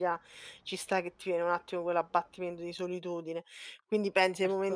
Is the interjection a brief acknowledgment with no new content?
Yes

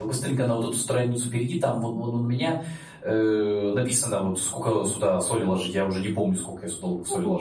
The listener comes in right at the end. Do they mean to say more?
Yes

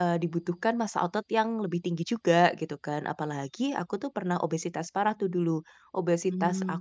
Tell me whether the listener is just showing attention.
Yes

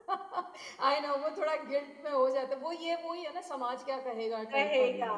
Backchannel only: No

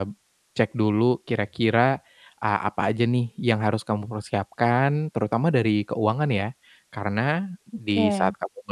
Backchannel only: Yes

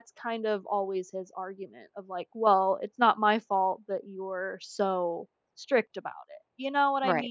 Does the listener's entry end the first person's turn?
Yes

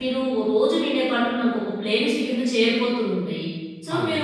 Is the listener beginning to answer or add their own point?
No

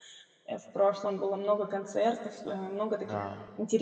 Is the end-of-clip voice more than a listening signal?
No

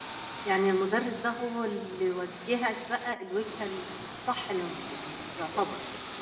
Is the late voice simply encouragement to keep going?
No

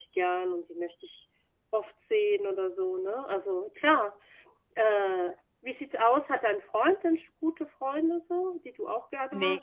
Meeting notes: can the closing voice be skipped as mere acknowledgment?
No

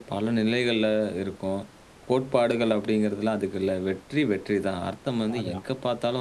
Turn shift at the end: No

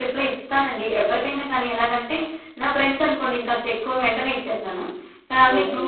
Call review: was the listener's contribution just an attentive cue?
Yes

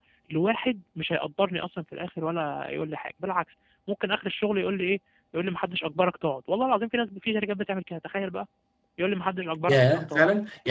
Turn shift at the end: Yes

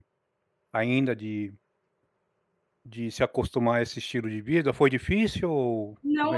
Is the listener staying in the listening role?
No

